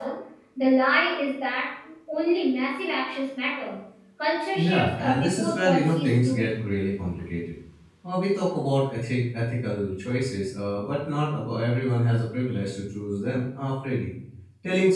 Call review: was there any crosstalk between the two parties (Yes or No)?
Yes